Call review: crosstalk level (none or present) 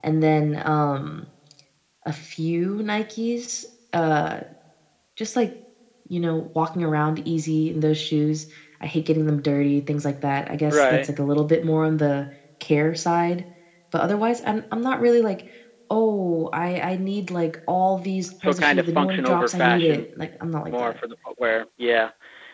present